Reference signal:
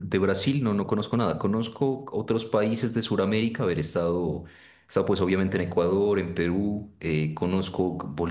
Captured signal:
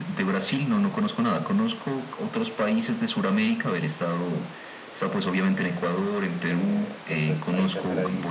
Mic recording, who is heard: both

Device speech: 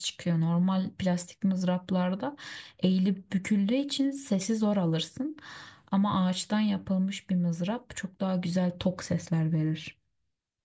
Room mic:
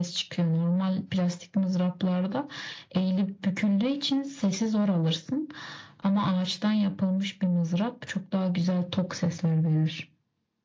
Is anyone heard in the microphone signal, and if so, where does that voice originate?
echo only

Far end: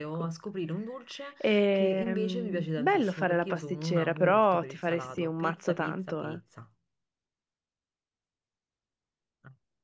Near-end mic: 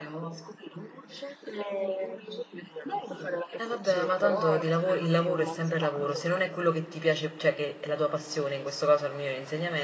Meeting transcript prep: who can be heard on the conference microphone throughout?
both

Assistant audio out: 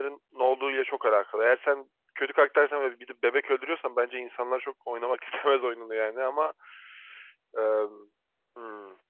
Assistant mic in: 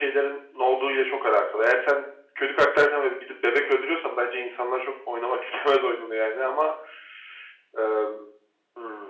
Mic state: echo only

